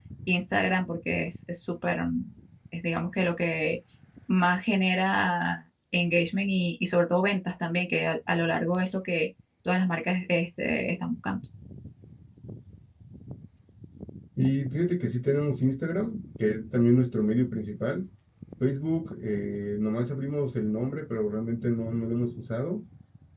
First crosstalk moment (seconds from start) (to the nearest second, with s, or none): none